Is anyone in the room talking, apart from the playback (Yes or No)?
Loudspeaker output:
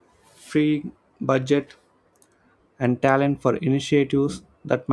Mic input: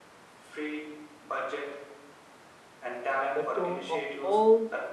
Yes